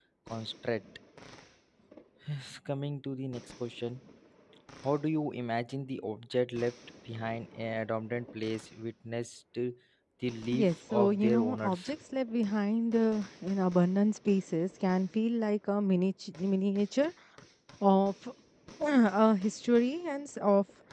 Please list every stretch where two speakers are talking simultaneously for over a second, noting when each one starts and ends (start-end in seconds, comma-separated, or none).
10.5-11.9